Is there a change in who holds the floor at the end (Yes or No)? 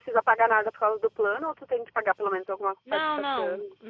Yes